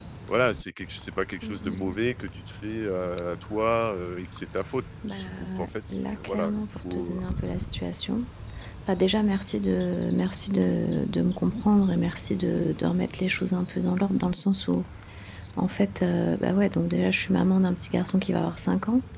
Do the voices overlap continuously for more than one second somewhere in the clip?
Yes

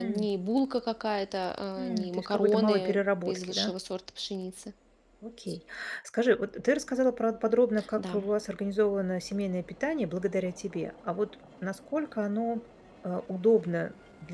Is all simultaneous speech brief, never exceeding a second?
No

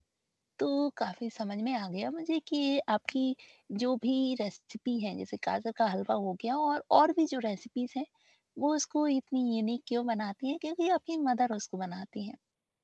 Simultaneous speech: No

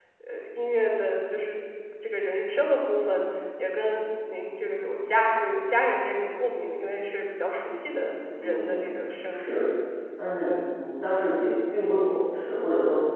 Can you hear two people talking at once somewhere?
Yes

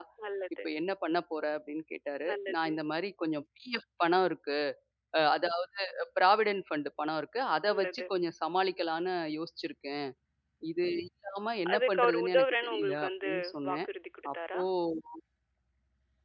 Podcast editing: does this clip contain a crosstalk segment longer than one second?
Yes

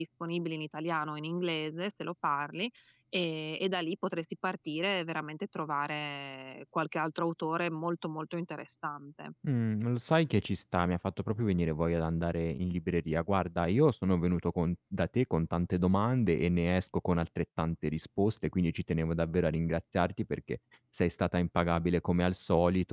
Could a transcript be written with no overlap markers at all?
Yes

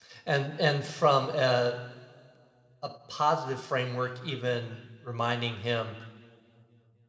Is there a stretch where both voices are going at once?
No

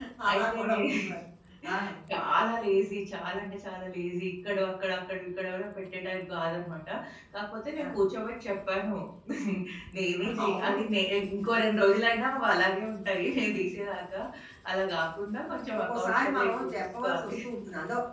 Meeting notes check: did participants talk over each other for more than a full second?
Yes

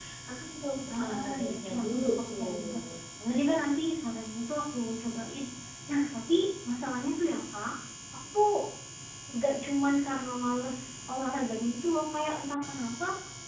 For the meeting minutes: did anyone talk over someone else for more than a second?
Yes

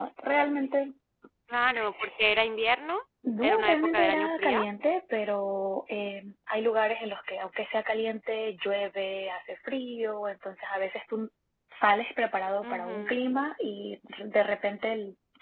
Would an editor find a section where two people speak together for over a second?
Yes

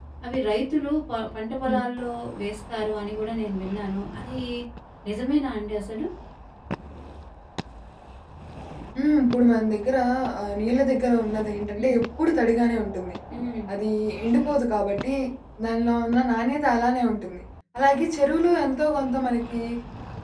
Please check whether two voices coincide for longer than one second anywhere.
No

